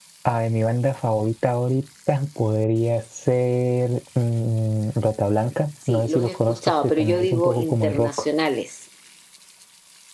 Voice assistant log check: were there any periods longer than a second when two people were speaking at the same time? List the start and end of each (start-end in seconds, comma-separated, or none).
5.9-8.1